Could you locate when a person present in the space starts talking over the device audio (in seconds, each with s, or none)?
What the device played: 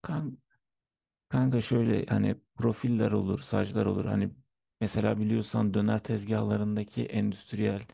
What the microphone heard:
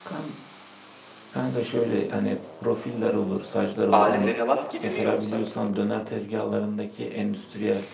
3.9 s